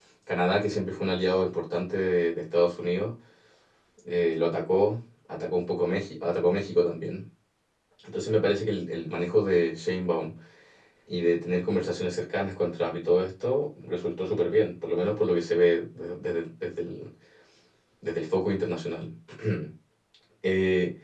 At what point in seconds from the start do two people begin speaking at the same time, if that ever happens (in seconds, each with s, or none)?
none